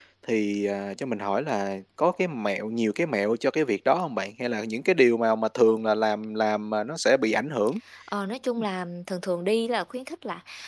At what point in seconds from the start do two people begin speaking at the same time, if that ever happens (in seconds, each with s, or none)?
none